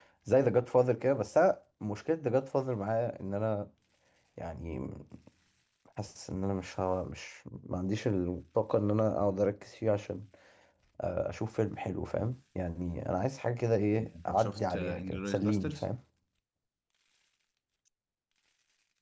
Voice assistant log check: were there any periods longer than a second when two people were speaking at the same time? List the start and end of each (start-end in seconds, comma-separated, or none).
14.3-15.8